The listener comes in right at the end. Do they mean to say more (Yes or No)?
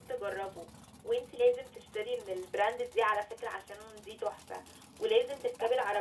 No